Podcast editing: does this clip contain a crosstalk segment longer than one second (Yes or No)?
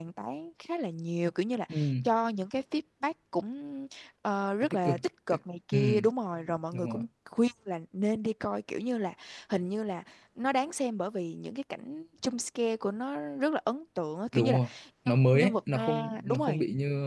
Yes